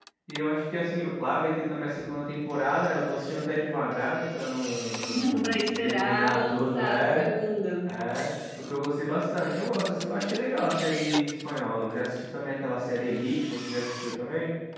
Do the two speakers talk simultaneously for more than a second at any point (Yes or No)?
Yes